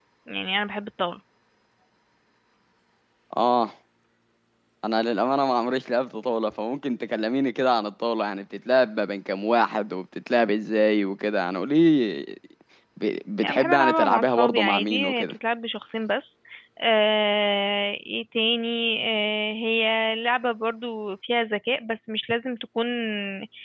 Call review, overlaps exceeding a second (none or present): present